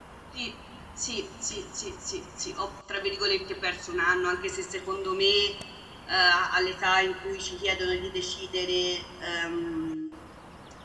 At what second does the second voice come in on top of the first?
none

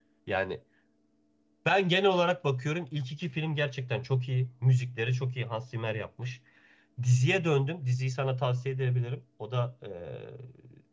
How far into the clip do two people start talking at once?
none

